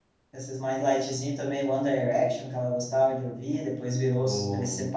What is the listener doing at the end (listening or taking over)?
listening